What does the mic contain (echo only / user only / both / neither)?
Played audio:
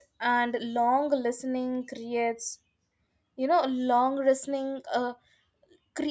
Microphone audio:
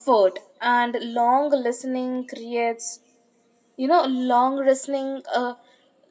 echo only